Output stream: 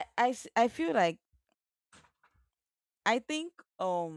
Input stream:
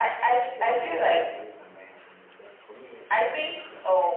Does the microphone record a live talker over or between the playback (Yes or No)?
Yes